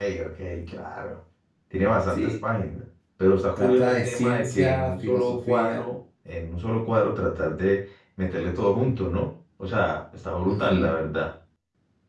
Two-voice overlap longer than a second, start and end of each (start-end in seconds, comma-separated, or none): 3.6-5.9